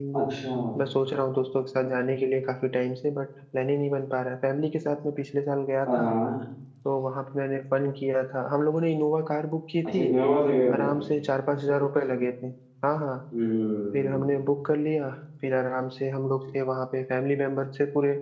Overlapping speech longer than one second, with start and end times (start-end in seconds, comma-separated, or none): none